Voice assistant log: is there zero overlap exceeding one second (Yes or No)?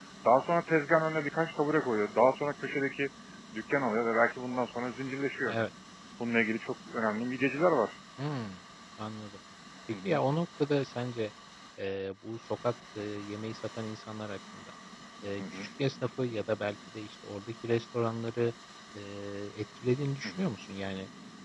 Yes